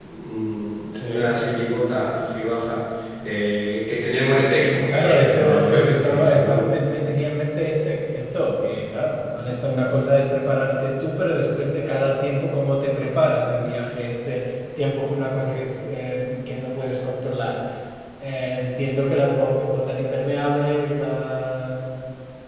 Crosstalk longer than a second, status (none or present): present